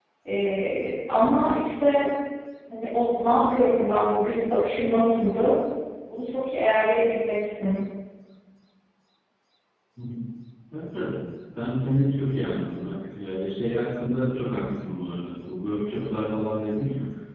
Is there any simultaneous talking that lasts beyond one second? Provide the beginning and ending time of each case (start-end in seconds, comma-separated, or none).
none